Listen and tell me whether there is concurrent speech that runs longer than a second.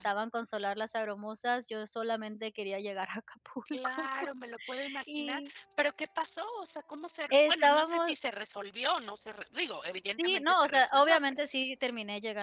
Yes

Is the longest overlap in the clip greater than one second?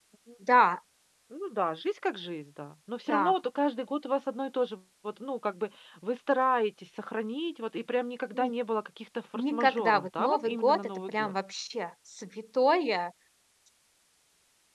Yes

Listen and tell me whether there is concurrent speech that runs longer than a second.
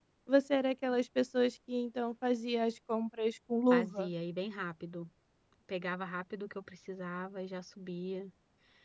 No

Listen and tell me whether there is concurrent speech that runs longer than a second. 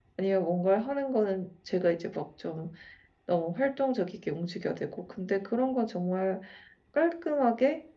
No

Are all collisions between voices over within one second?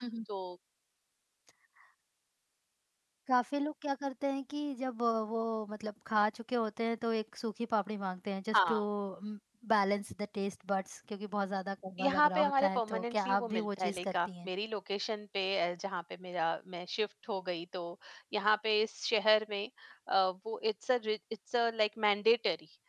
No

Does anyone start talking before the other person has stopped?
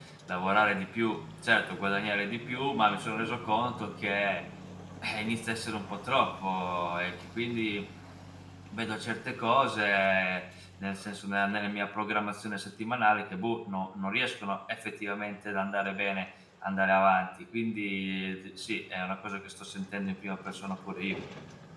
No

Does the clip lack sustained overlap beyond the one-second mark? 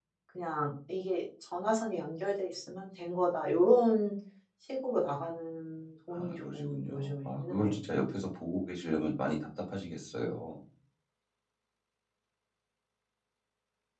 No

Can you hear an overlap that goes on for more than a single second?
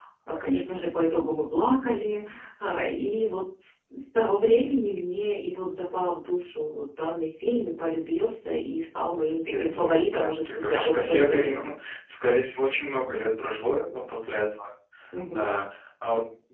Yes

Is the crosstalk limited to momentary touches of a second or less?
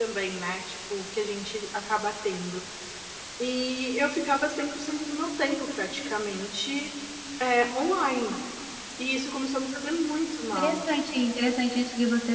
Yes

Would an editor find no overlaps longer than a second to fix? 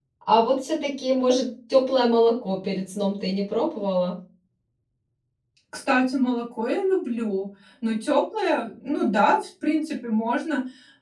Yes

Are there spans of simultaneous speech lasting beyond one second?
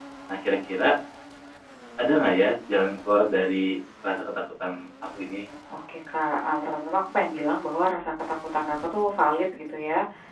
No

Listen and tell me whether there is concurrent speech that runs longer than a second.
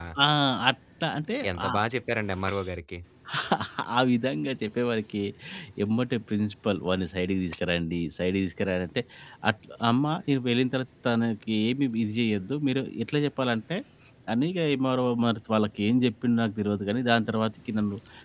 No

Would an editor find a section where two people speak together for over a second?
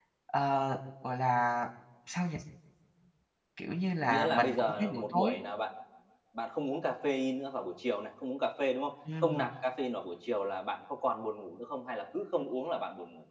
Yes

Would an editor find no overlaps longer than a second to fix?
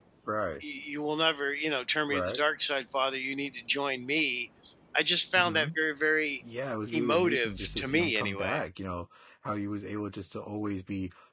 No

